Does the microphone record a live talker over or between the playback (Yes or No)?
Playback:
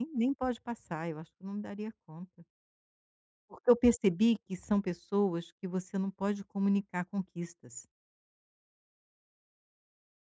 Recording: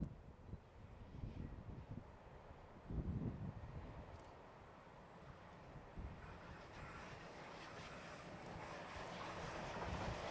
No